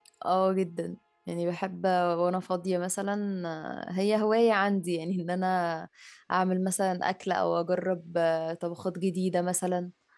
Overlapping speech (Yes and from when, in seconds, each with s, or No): No